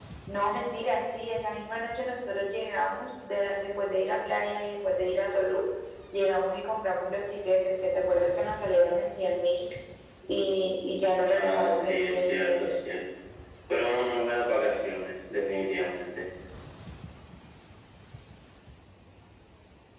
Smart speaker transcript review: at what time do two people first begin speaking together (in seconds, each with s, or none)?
11.3 s